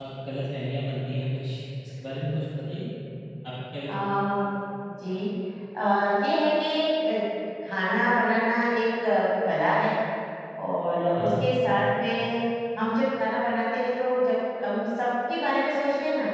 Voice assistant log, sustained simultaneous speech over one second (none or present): none